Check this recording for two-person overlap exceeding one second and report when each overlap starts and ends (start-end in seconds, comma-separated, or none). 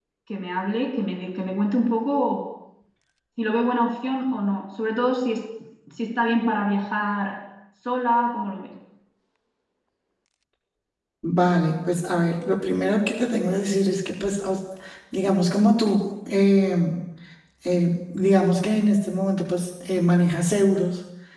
none